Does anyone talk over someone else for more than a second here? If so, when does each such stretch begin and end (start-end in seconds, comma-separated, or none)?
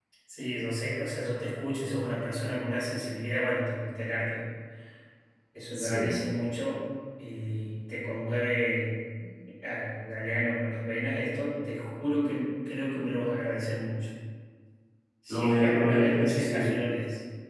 15.3-16.6